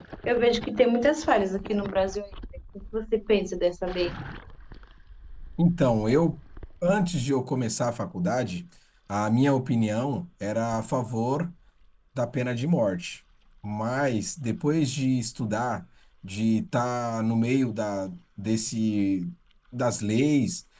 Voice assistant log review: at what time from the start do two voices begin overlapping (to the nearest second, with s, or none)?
none